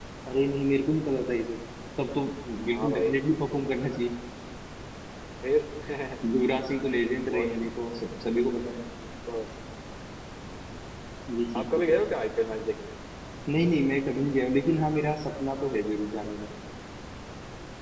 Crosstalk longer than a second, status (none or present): none